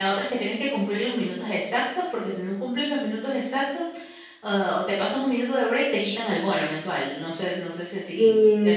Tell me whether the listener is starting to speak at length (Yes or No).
Yes